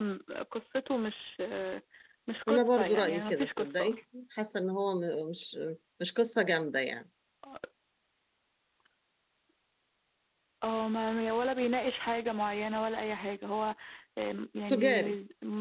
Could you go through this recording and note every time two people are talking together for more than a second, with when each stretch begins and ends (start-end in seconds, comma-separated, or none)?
2.5-4.0